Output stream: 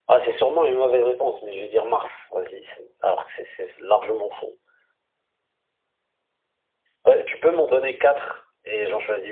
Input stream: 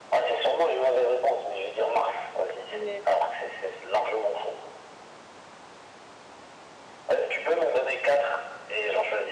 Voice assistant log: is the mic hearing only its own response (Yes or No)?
No